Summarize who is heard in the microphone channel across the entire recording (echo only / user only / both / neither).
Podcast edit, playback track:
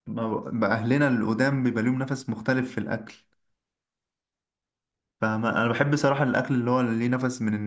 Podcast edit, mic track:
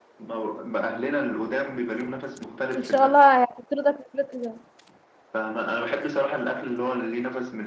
both